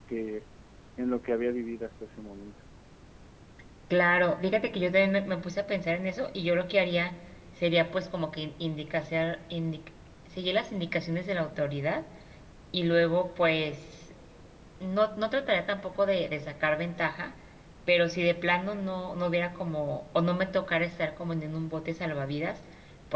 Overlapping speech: No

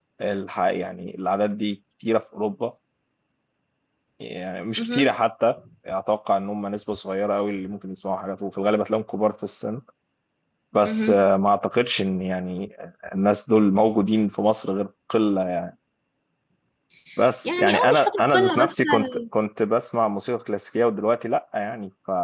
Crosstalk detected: Yes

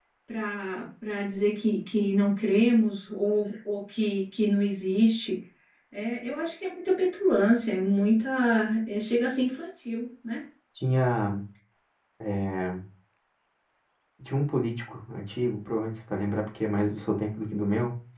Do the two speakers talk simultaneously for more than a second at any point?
No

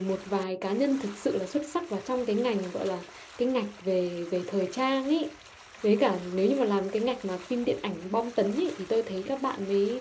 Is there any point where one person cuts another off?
No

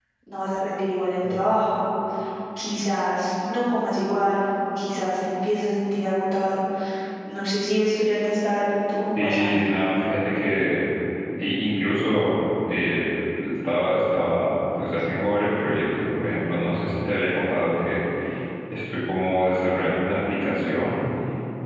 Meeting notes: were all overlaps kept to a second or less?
Yes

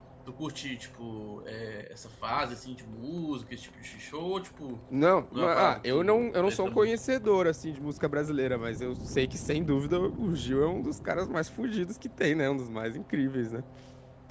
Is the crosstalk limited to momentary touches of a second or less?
No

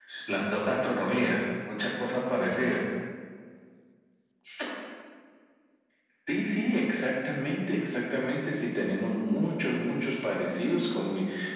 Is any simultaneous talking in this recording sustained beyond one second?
No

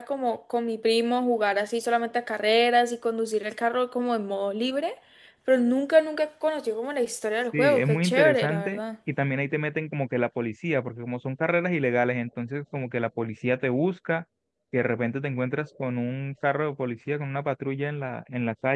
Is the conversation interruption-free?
No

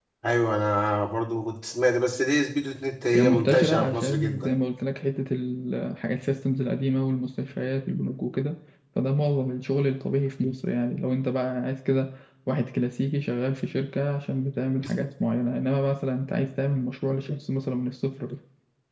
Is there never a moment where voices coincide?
No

